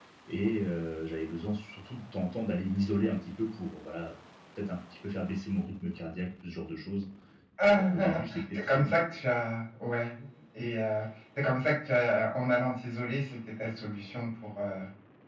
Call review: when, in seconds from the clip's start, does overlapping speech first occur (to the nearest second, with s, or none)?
8 s